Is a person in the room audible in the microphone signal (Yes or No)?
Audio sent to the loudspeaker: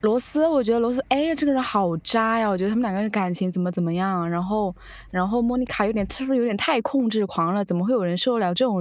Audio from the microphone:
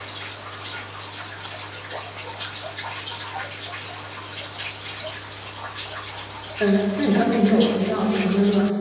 Yes